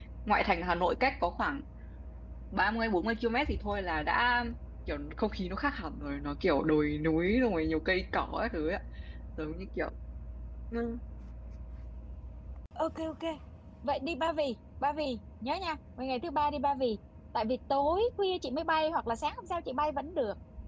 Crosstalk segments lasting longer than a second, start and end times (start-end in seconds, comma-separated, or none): none